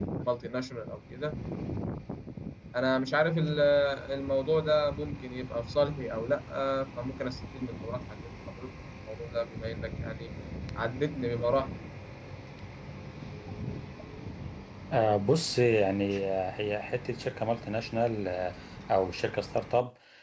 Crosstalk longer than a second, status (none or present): none